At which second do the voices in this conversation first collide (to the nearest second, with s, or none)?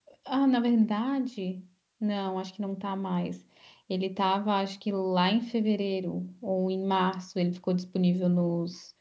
none